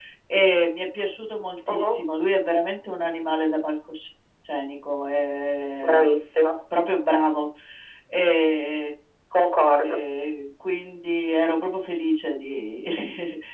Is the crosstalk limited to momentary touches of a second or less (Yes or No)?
Yes